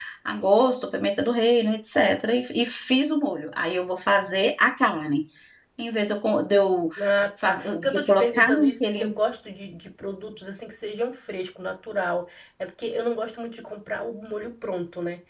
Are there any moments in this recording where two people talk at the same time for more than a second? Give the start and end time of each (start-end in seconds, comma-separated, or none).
7.4-9.0